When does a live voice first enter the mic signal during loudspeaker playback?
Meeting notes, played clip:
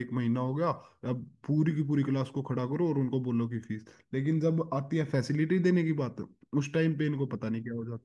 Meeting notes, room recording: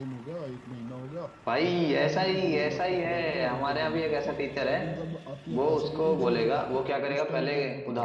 1.5 s

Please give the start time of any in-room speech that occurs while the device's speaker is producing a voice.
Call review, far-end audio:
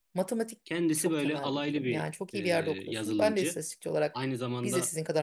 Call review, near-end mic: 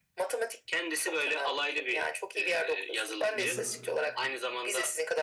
3.3 s

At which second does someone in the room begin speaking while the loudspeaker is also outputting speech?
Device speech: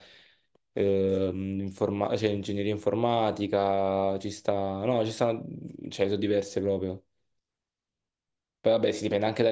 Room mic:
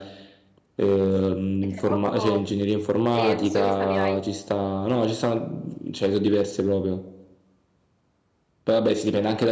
1.6 s

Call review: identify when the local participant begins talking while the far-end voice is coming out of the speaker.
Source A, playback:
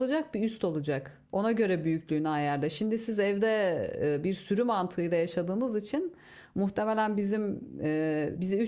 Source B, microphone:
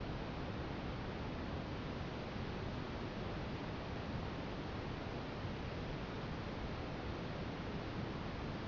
none

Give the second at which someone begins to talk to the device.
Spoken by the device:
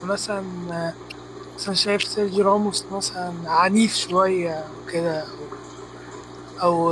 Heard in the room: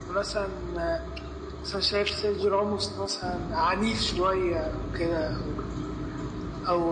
none

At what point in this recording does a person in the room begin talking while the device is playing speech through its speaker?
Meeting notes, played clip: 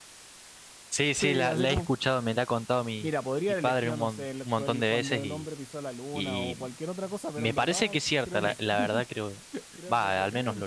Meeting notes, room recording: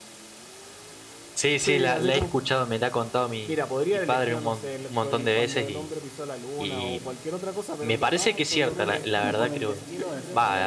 8.4 s

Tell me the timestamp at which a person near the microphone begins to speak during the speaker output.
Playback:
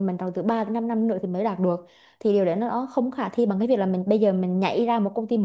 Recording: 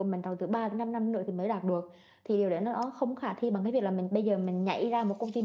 none

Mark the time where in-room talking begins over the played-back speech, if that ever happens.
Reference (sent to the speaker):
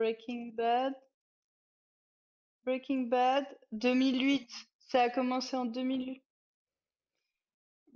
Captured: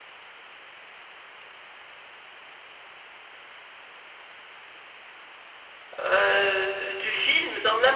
6.0 s

